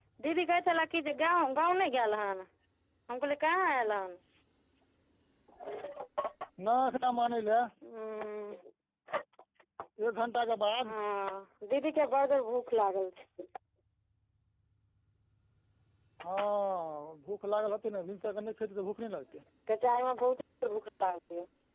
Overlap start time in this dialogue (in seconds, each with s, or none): none